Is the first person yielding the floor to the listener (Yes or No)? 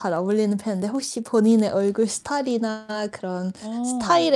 No